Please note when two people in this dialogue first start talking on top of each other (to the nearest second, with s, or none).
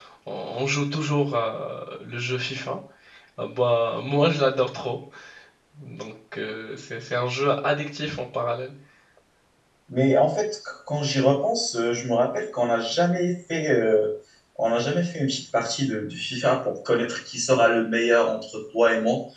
none